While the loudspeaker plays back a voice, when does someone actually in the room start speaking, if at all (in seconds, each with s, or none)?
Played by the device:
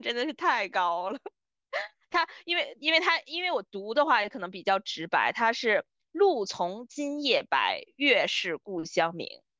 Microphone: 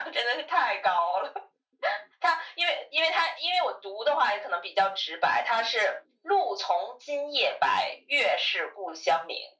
none